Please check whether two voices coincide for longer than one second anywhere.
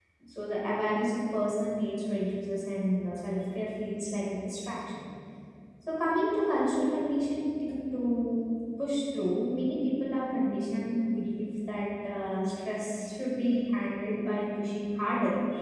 No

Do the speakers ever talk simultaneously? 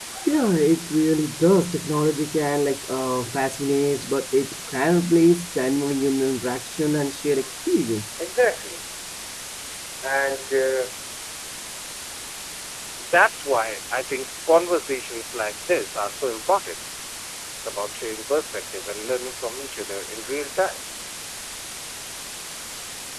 No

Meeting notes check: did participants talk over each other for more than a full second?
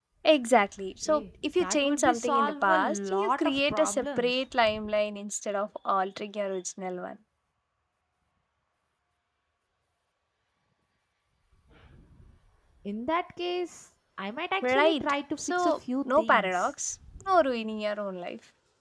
Yes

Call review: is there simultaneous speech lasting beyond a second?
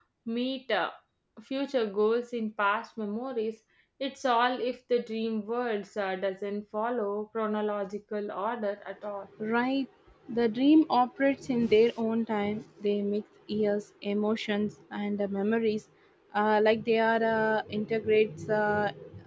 No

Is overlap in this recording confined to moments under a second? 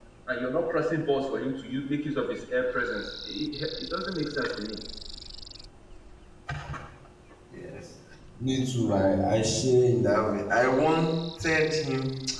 Yes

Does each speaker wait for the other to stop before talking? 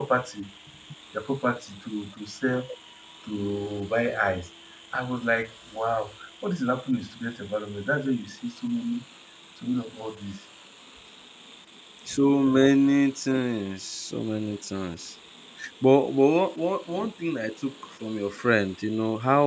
Yes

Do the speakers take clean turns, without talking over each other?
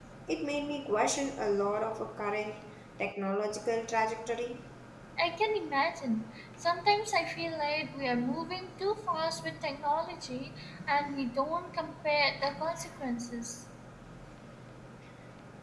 Yes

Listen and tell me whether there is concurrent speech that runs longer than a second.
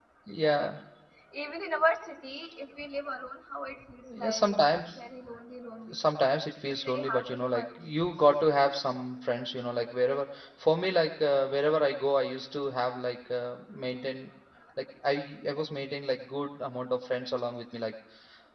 Yes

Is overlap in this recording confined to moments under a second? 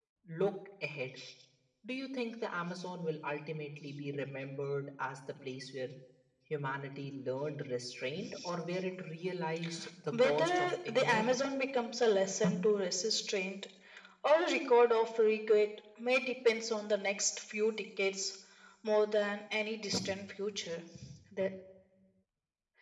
No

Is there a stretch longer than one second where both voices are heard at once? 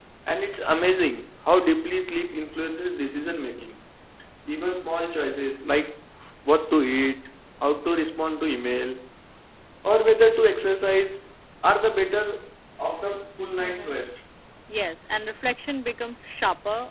No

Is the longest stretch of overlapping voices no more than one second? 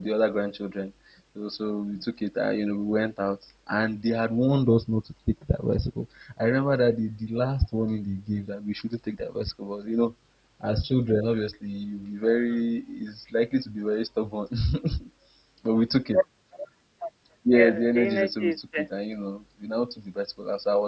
No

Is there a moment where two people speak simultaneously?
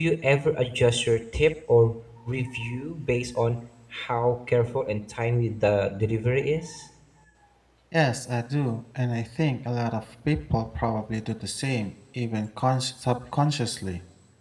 No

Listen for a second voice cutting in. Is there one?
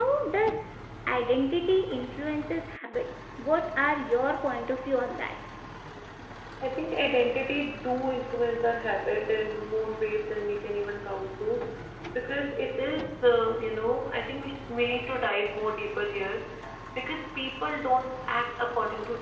No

